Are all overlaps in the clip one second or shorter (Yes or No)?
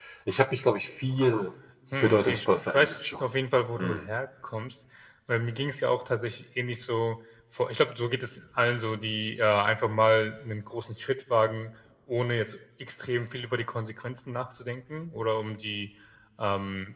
No